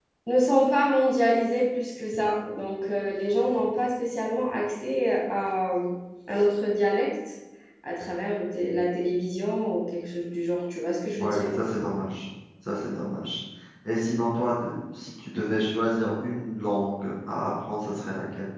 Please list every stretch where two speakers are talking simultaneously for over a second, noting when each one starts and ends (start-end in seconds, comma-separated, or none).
none